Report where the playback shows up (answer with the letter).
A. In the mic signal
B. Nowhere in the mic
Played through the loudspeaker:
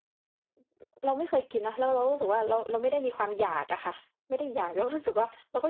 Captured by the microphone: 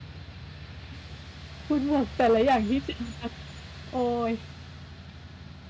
B